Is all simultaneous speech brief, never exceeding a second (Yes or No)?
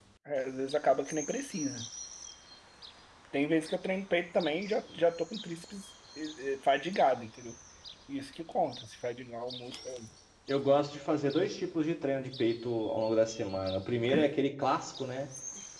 Yes